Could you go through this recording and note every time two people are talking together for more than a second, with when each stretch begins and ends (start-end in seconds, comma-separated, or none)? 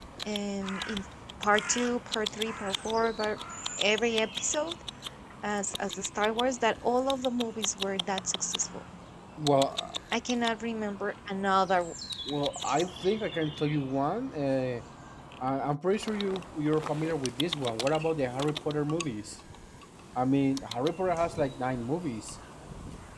none